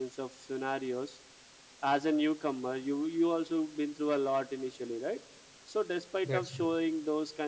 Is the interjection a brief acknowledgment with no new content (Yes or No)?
Yes